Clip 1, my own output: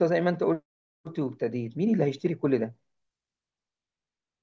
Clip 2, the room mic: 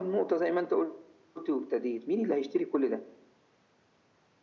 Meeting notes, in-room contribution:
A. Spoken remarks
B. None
B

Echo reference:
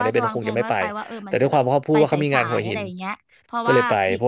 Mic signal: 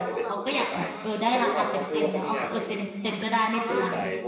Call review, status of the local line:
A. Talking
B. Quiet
A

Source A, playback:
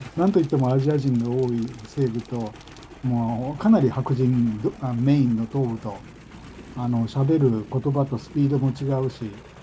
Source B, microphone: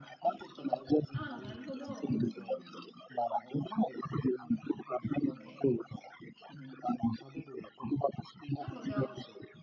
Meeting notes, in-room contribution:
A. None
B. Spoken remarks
B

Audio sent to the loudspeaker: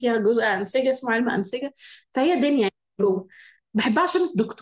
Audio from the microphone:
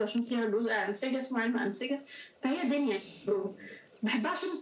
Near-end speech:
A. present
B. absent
B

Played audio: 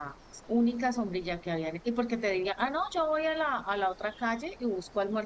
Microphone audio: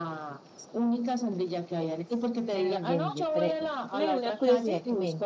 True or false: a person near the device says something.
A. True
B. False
A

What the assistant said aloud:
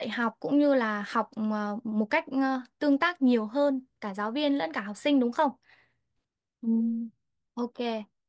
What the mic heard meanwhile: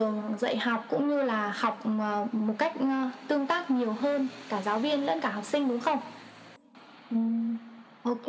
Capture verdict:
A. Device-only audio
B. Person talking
A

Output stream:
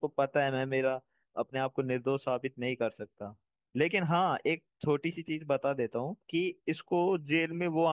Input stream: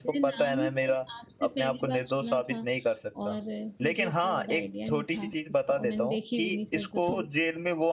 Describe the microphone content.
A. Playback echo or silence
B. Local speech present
B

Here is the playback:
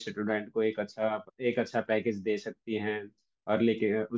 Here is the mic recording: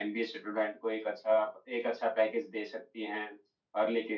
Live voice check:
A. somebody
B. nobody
B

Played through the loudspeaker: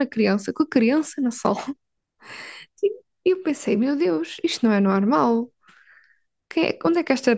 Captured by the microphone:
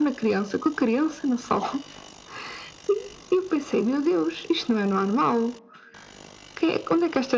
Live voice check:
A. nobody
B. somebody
A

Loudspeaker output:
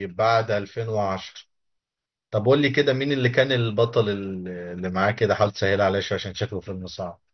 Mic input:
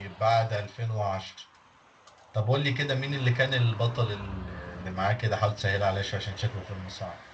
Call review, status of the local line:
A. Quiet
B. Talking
A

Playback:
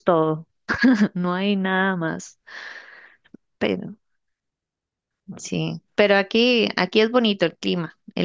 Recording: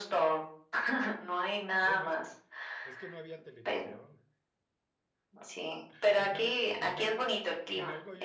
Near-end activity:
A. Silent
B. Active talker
B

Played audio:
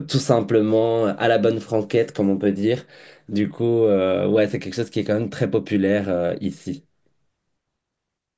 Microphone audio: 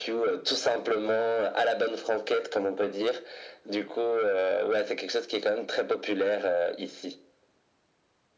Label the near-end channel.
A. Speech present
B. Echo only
B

